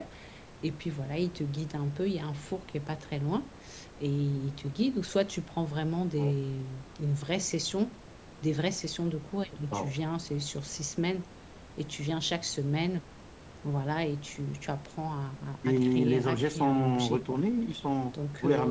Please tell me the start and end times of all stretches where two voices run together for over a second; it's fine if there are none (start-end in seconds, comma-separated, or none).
15.7-17.4